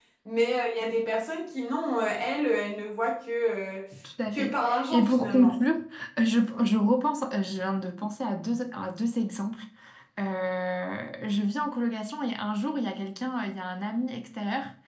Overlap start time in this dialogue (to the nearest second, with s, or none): 4 s